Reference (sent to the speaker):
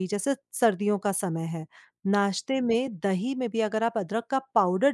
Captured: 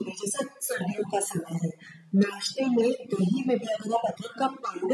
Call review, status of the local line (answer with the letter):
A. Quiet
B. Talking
A